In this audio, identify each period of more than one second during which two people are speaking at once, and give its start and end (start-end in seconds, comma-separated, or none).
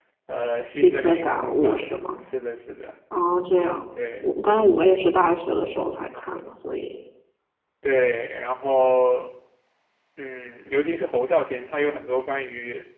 0.6-1.8